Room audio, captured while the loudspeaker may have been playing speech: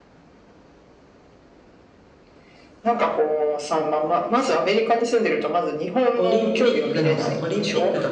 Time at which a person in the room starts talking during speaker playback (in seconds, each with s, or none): 6.2 s